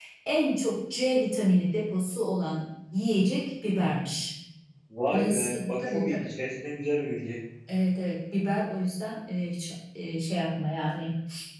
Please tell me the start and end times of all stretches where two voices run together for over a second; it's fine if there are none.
5.1-6.3

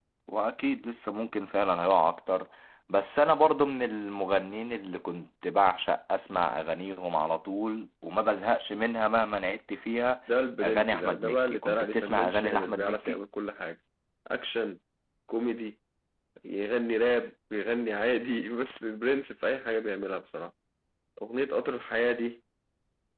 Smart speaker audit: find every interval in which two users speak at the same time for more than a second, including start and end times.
10.6-13.2

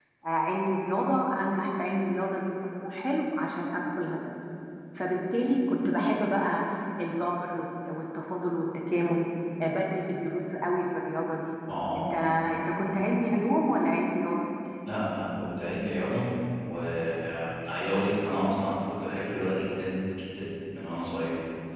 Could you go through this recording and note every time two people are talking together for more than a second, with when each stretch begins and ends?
none

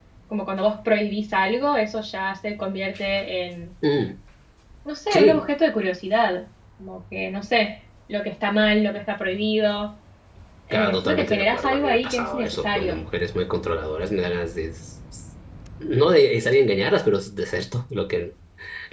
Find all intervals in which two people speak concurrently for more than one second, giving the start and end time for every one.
10.7-13.0

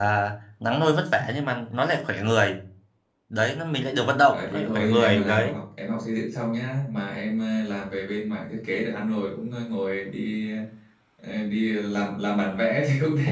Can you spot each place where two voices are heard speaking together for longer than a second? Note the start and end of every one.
4.3-5.6

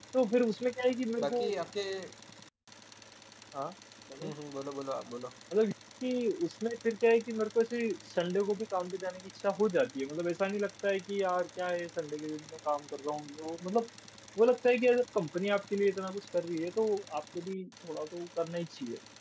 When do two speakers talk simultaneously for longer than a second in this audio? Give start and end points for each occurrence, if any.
none

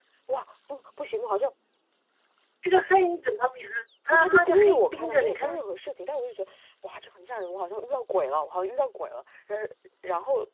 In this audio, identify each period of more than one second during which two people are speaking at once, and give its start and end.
4.1-5.6

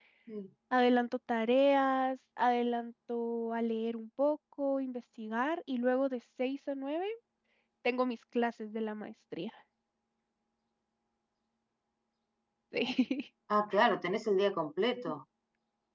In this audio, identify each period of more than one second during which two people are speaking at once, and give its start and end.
none

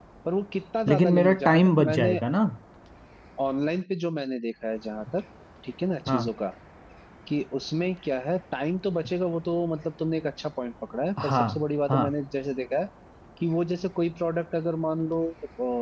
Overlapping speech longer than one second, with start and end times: 0.9-2.2

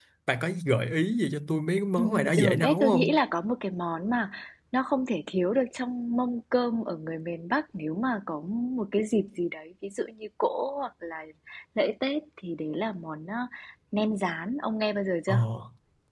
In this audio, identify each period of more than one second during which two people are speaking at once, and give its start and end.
2.0-3.2

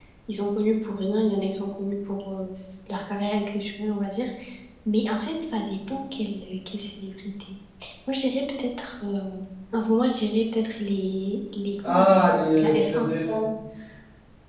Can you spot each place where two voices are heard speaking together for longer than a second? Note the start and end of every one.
11.9-13.1

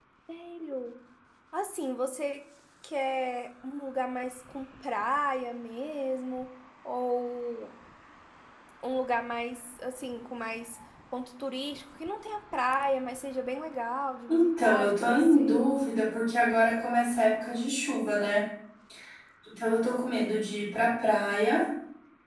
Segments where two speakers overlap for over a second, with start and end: 14.3-15.7

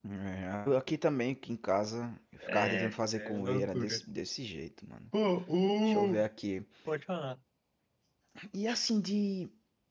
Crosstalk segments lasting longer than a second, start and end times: 2.5-4.0

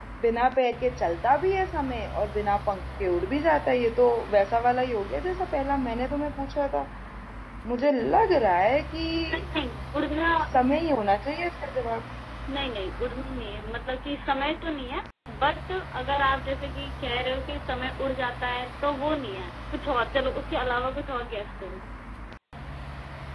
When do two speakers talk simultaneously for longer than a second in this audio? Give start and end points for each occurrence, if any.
none

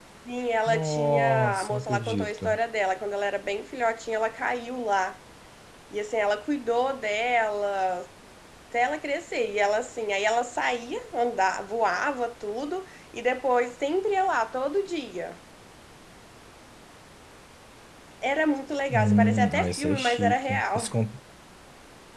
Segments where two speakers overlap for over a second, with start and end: 0.7-2.6, 18.9-20.8

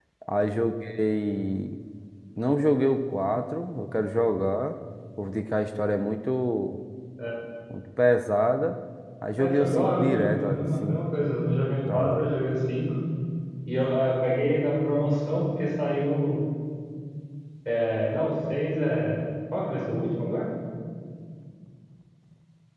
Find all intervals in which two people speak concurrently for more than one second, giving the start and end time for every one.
9.4-11.1

